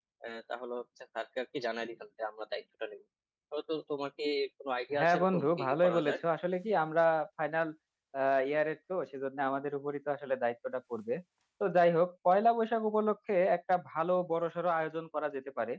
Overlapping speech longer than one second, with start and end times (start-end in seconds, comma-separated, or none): 5.0-6.2